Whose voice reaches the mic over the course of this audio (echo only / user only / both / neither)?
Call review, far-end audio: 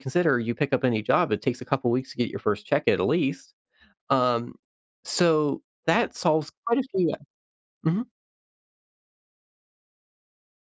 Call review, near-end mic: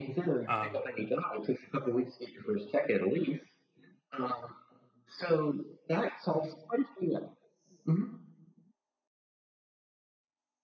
both